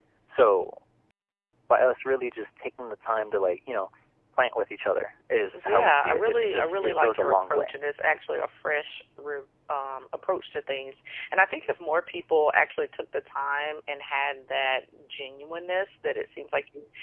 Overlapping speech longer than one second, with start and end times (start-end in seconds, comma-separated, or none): 5.7-7.7